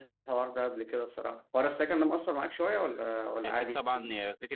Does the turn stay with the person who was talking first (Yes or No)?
No